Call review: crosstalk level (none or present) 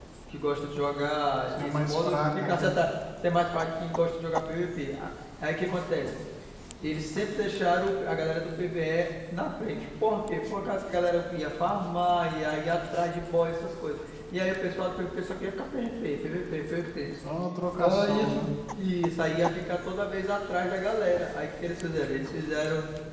present